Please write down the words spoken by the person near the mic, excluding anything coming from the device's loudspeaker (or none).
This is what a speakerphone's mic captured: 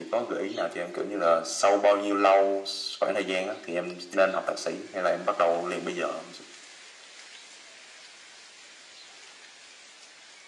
none